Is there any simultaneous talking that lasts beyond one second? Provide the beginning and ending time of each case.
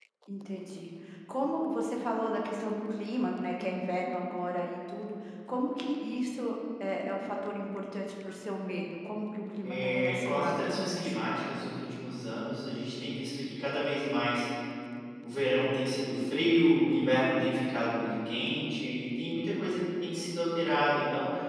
9.6-11.2

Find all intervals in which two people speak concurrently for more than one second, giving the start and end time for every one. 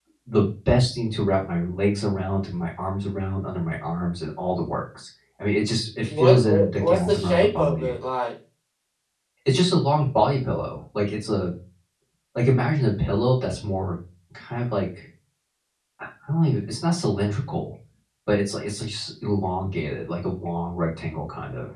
6.2-7.9

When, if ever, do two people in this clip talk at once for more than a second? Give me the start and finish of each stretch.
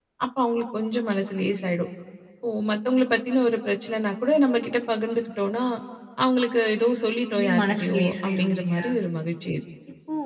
7.3-8.9

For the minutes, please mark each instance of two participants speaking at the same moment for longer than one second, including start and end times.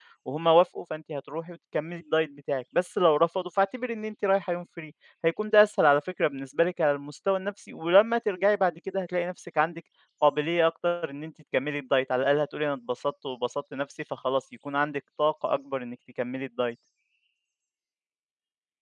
none

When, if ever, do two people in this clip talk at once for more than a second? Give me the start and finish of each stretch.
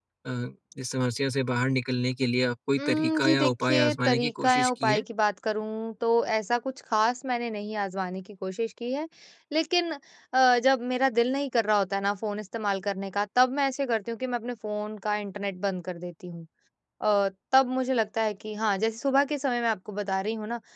2.8-5.0

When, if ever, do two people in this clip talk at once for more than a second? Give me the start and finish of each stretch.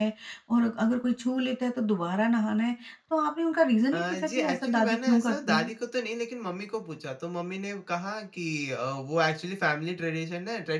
3.9-5.7

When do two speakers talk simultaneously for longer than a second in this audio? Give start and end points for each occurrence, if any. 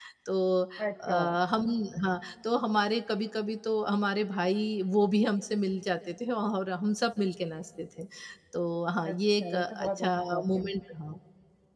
9.1-10.6

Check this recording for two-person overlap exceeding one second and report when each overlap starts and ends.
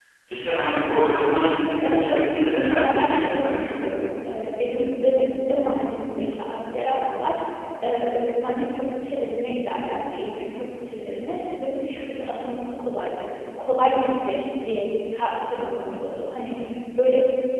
1.8-3.7

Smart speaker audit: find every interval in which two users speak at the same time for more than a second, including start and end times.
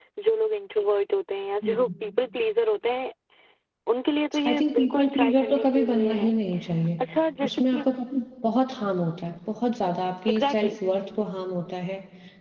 4.4-6.3

